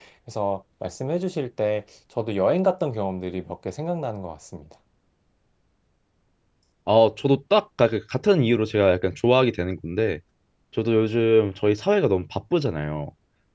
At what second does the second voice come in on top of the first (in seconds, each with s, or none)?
none